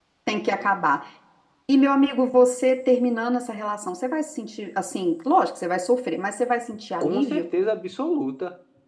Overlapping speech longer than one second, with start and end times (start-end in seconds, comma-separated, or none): none